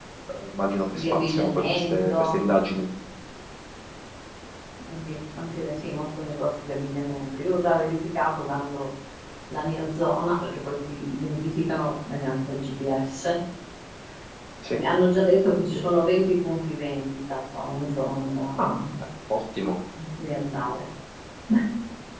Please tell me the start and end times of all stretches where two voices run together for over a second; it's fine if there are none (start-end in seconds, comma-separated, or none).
1.0-2.4